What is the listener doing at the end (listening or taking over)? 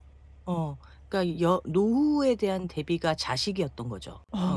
taking over